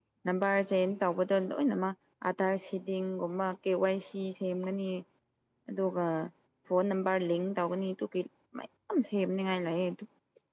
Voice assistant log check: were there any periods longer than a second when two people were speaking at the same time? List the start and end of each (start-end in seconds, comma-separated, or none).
none